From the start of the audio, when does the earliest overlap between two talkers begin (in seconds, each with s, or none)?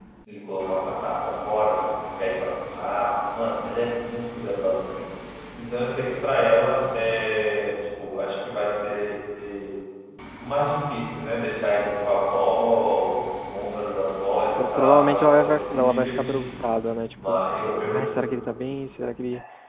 14.6 s